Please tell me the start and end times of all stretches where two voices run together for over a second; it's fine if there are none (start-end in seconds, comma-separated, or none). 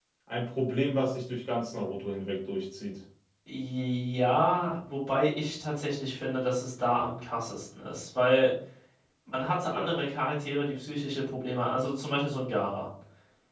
none